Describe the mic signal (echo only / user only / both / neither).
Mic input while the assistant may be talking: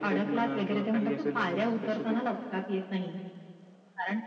echo only